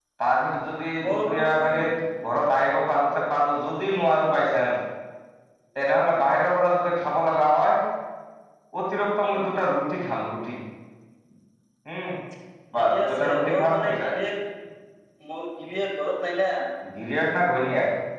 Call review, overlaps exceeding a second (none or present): present